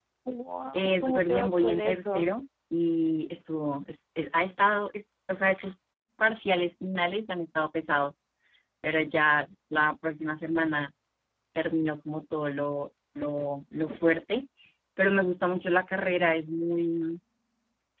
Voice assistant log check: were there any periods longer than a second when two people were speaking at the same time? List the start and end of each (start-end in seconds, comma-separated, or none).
0.7-2.3